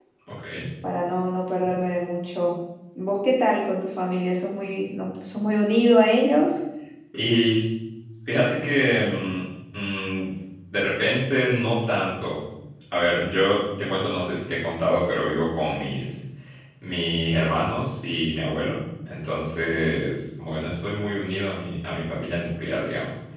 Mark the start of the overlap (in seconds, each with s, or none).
none